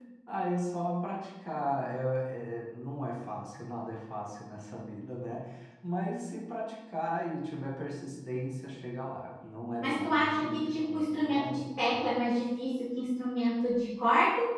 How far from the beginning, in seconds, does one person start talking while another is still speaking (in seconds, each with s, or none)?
9.8 s